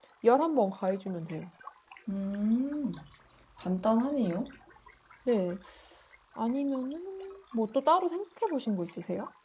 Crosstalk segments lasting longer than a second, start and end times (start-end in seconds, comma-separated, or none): none